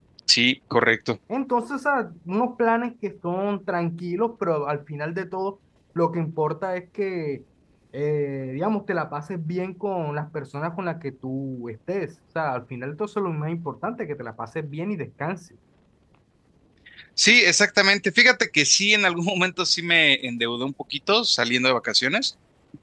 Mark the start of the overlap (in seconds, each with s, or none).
none